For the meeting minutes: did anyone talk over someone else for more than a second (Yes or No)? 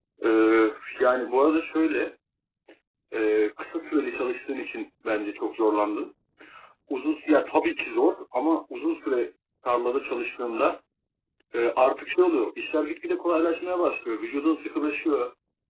No